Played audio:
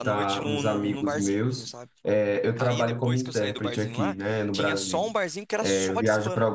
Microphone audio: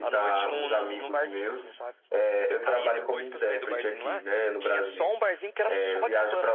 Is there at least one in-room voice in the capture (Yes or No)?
No